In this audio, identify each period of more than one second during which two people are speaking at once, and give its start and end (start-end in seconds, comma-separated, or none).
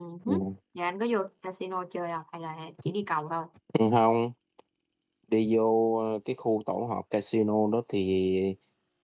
none